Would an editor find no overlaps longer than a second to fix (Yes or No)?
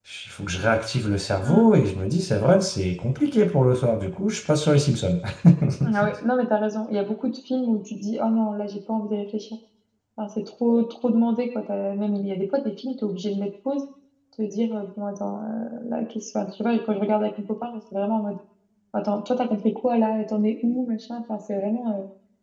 Yes